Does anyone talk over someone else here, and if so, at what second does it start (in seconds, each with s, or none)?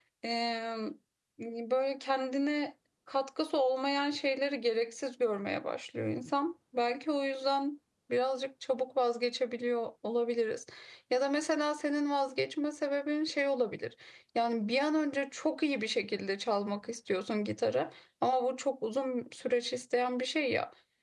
none